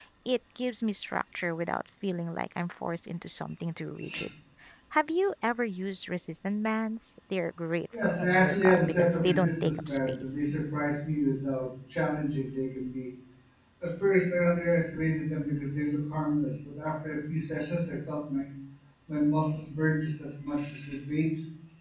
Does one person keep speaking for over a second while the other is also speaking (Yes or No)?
Yes